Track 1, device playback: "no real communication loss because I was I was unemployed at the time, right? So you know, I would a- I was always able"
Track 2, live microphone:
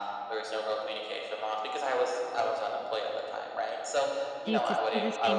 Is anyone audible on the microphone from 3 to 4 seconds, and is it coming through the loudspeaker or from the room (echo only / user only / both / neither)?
echo only